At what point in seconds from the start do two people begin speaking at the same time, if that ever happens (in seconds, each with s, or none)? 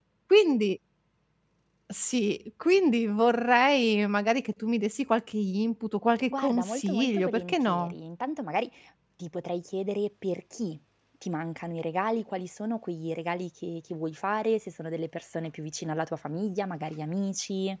6.3 s